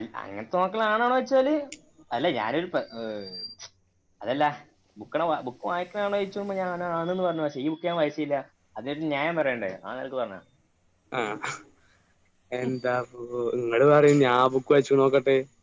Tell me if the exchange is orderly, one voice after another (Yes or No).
Yes